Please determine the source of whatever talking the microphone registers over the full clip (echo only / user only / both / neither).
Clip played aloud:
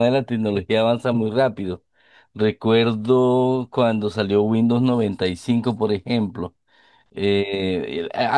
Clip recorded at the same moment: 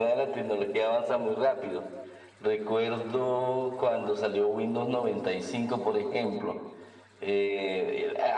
echo only